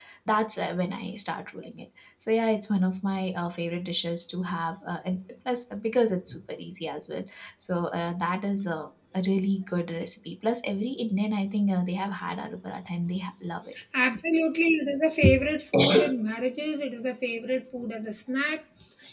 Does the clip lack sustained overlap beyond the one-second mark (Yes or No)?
Yes